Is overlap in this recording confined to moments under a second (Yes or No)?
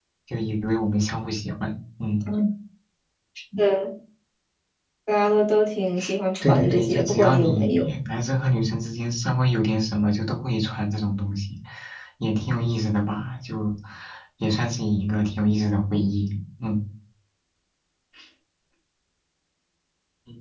No